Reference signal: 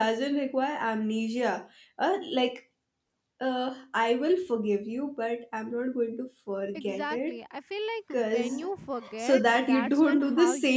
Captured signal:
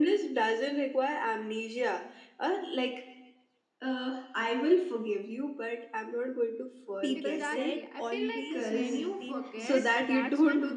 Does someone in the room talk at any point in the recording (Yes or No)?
Yes